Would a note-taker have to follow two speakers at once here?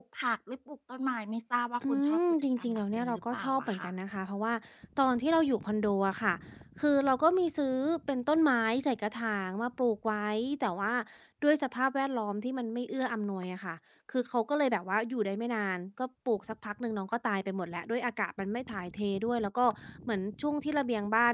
Yes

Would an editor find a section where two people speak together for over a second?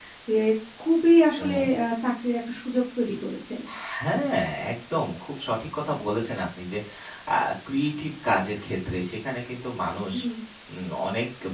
No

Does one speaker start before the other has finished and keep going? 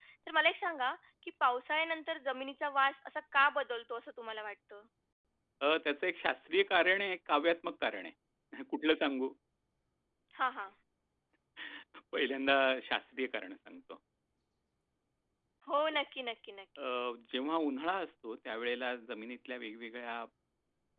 No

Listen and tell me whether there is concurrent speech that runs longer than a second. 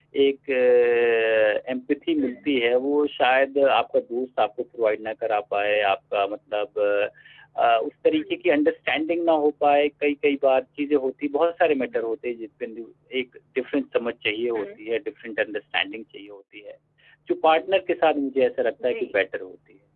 No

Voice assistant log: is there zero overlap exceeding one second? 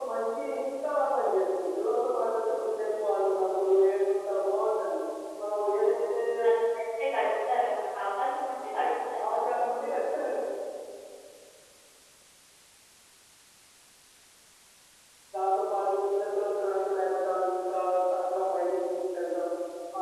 Yes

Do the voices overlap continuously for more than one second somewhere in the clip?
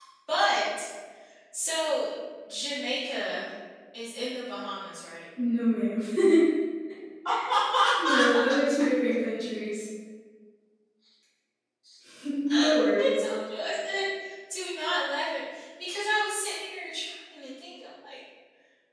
No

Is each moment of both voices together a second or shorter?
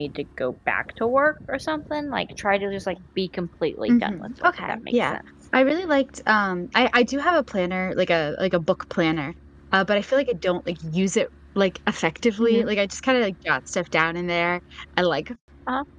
No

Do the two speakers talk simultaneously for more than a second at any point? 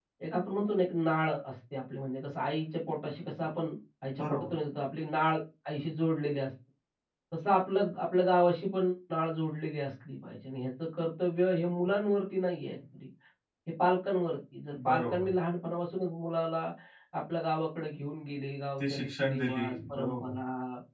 Yes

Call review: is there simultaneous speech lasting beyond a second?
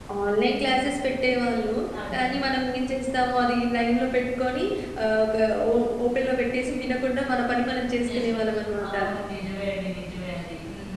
No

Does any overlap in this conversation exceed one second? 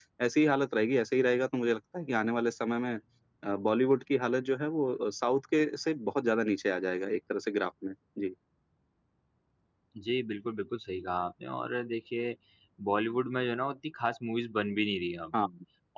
No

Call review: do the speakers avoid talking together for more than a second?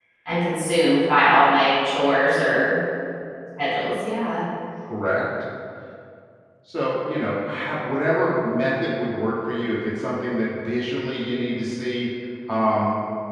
Yes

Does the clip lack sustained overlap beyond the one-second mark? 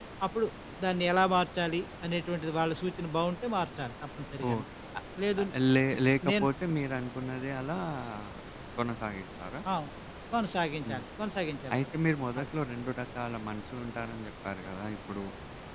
Yes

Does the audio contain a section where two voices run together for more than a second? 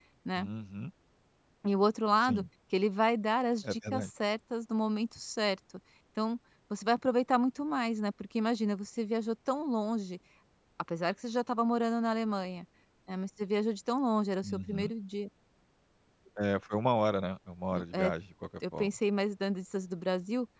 No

